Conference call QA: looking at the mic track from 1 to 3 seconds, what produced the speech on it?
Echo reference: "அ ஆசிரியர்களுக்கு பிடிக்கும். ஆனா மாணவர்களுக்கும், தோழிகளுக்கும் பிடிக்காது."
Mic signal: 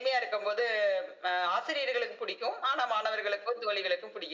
echo only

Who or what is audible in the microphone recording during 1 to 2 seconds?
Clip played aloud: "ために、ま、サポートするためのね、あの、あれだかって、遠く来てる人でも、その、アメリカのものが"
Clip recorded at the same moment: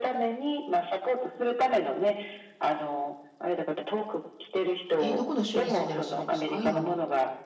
echo only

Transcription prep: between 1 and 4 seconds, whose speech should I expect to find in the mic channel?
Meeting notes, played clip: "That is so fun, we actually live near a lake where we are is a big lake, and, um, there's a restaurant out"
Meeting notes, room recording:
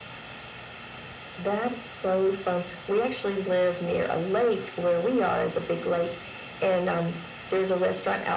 echo only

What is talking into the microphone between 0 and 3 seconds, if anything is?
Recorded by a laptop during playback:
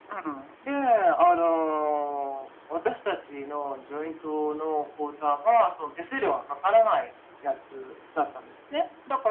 echo only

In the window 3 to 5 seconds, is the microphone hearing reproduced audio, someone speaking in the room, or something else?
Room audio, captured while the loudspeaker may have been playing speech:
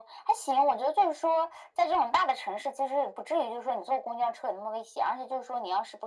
echo only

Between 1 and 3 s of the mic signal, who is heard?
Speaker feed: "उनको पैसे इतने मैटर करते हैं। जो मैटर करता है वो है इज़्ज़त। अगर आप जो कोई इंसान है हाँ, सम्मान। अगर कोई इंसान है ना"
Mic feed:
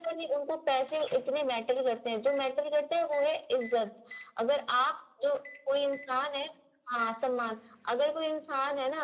echo only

